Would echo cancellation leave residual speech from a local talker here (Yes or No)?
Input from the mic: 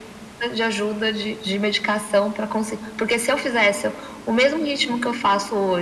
No